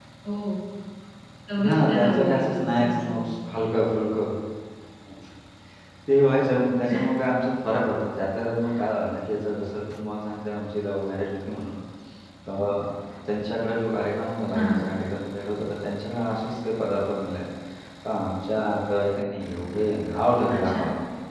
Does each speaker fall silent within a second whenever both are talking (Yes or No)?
No